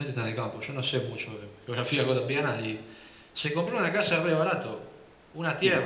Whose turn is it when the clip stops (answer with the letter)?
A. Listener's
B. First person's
B